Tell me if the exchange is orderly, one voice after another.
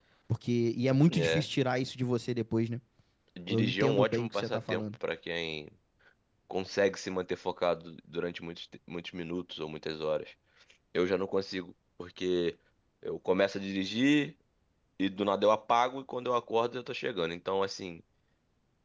No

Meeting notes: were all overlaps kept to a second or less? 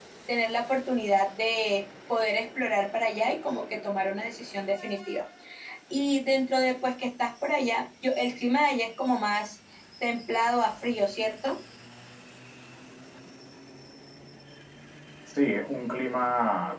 Yes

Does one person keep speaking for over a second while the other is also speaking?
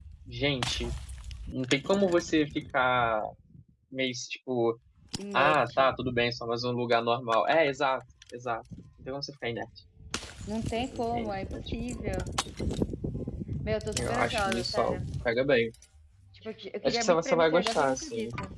Yes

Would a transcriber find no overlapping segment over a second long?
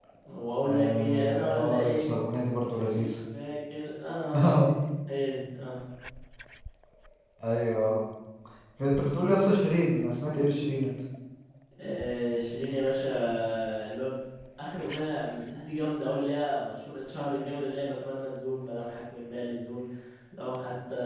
No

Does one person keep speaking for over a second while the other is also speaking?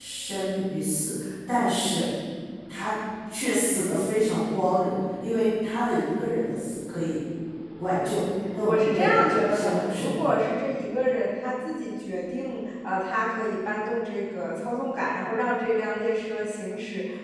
Yes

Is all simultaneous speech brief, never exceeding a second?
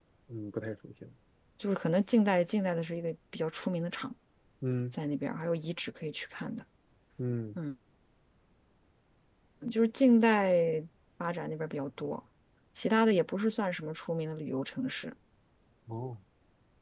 Yes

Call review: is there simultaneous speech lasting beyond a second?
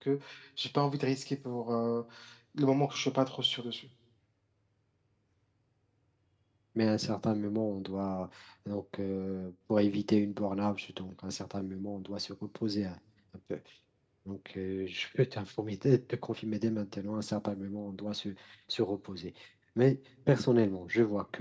No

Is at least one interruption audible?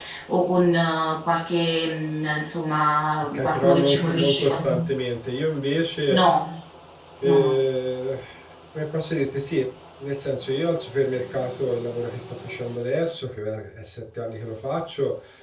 Yes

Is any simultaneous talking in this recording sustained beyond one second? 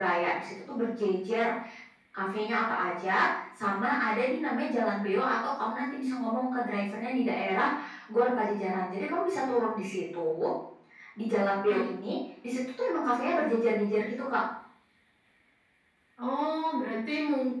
No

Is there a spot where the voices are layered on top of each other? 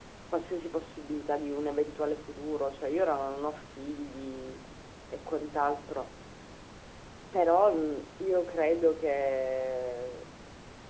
No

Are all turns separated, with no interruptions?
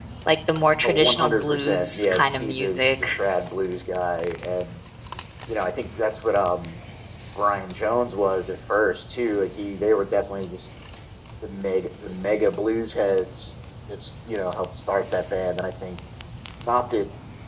No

